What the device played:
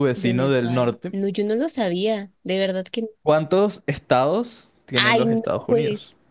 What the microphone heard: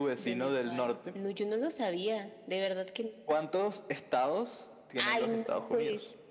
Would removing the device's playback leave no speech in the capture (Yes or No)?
Yes